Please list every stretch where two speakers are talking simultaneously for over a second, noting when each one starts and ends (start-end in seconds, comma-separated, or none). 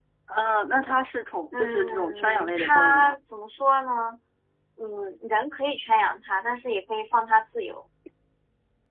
1.5-3.1